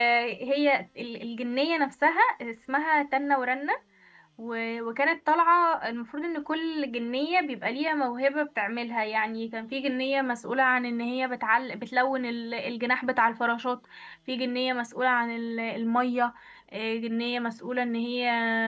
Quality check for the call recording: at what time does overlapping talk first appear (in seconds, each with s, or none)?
none